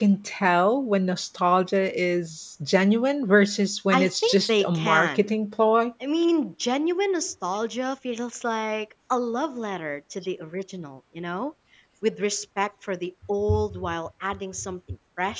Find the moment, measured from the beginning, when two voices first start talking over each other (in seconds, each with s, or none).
3.9 s